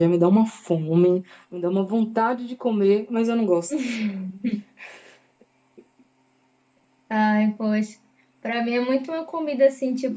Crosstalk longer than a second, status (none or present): none